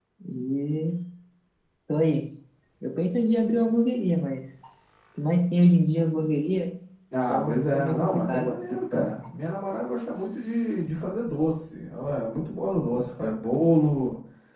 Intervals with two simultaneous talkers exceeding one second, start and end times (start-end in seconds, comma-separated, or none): 7.3-9.1